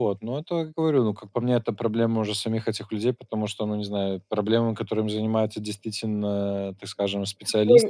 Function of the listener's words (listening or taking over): taking over